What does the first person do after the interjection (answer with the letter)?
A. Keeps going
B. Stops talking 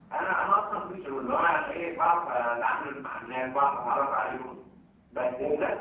A